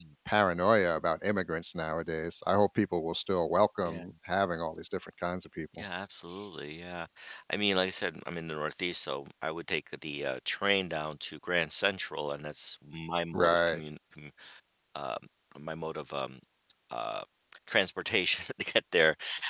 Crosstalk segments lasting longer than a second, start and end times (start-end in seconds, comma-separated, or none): none